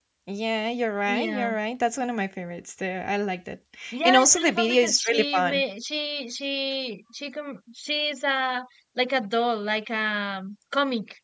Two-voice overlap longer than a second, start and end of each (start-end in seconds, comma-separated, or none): 4.0-5.6